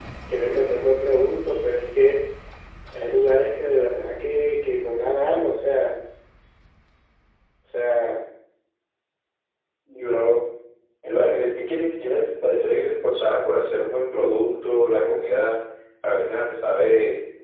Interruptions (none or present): none